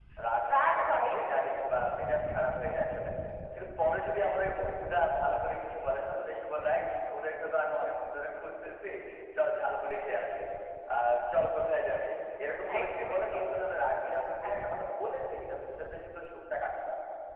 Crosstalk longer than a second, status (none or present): present